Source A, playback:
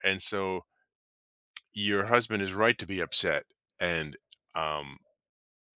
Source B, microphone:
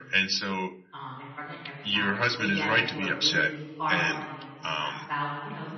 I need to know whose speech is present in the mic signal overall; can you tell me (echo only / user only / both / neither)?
both